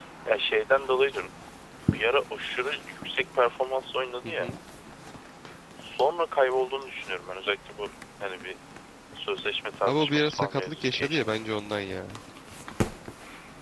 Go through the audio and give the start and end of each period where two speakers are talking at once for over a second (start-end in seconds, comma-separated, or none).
9.8-11.3